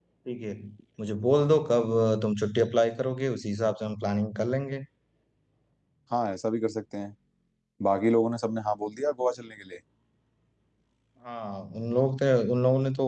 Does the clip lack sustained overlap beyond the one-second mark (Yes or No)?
Yes